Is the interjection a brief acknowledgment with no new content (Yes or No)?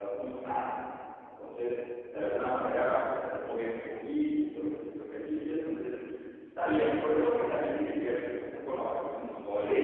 No